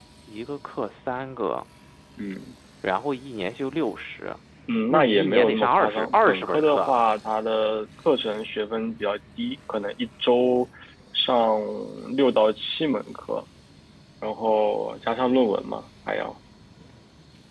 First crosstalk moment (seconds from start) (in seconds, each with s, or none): 4.9 s